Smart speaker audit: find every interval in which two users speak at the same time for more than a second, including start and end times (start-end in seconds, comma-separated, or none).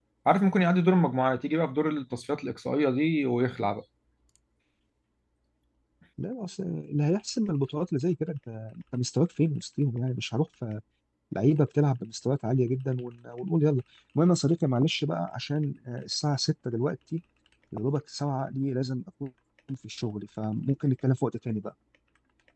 none